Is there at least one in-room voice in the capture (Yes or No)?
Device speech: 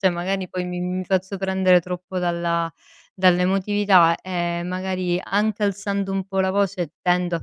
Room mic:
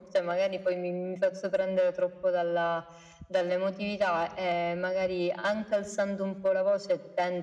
No